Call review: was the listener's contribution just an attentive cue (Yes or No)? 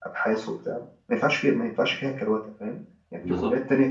Yes